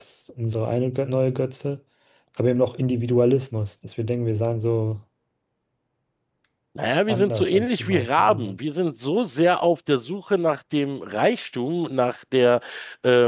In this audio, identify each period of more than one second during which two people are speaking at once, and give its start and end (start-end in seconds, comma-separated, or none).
7.1-8.6